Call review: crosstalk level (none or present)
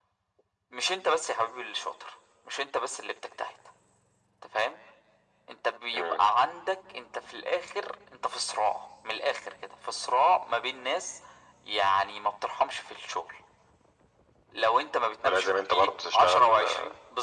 present